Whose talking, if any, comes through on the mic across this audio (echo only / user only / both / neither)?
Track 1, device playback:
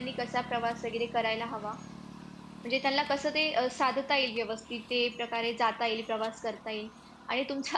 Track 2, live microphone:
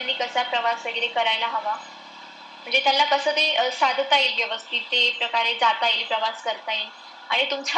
echo only